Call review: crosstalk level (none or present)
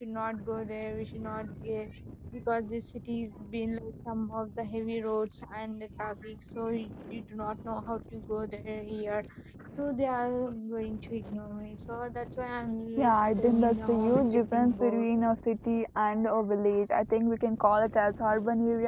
present